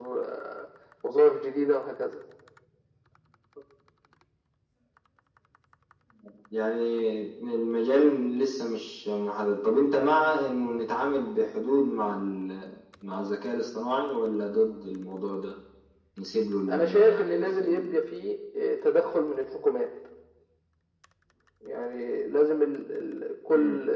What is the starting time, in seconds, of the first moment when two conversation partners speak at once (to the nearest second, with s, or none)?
17 s